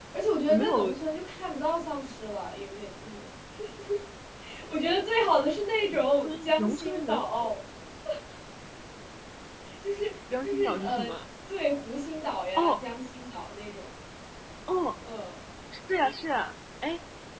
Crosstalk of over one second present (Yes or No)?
Yes